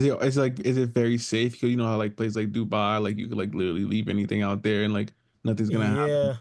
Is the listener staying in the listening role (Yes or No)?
No